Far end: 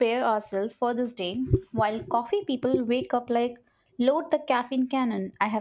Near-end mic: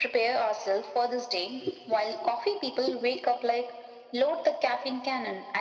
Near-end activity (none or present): none